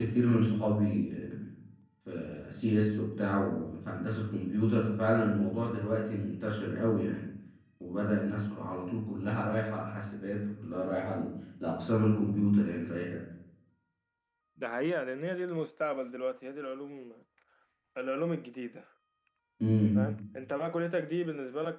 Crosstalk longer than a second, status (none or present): none